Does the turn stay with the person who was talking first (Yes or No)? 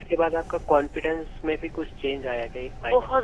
No